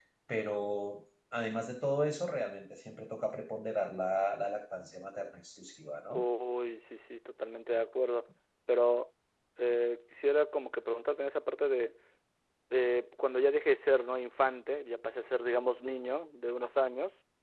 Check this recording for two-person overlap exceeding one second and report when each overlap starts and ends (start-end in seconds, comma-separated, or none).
none